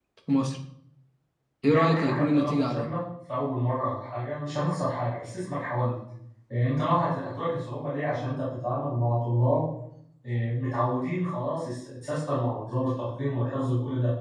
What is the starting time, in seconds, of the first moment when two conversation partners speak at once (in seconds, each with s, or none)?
1.7 s